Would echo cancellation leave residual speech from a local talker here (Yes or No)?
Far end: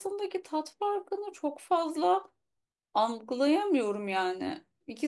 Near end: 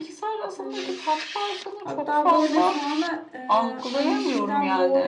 Yes